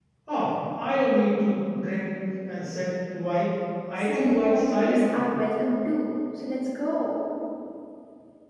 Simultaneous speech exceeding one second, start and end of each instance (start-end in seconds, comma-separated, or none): 4.0-5.2